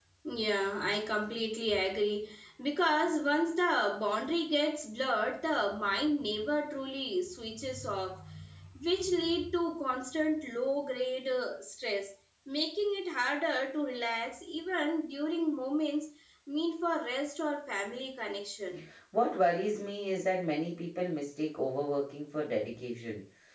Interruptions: none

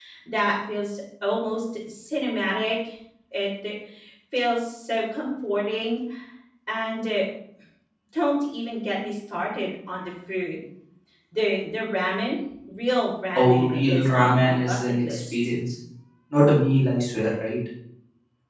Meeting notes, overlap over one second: present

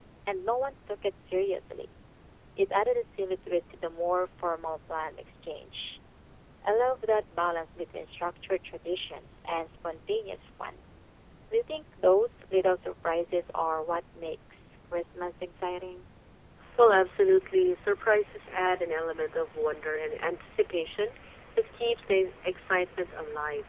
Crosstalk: none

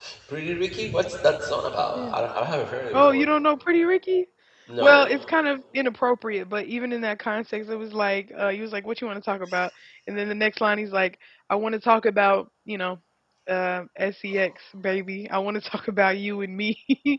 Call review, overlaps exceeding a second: none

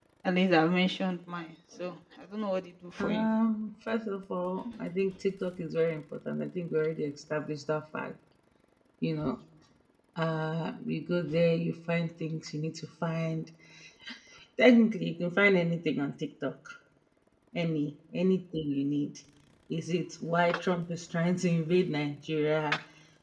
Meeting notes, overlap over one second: none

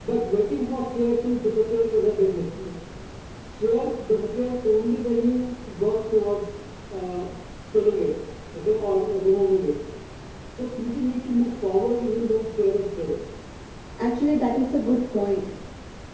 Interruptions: none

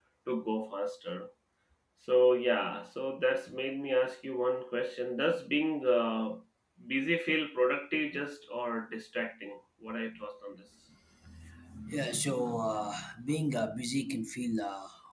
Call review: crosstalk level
none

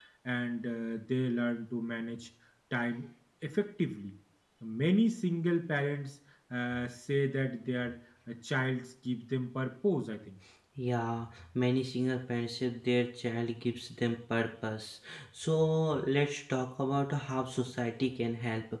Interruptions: none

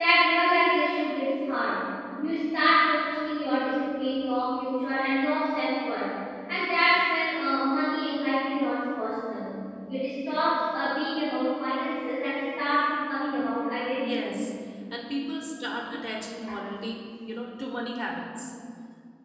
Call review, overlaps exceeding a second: none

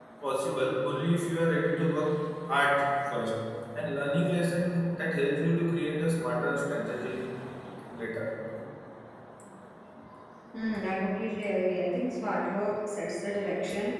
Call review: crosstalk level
none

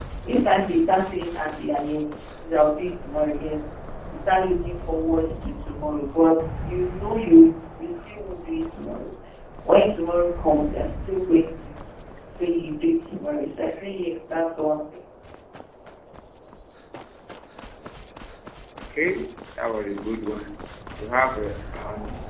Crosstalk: none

